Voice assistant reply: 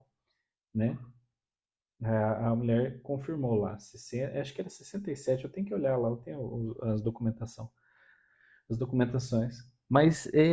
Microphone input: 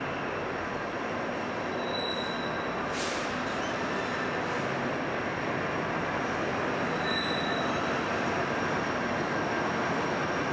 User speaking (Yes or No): No